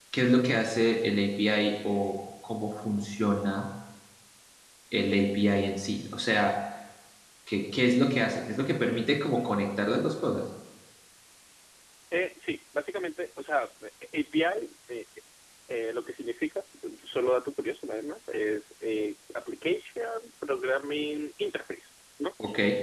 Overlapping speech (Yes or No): No